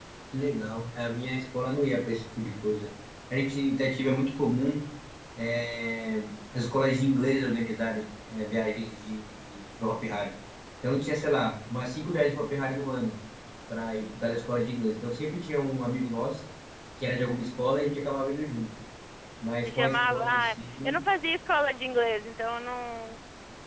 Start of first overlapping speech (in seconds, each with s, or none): 19.6 s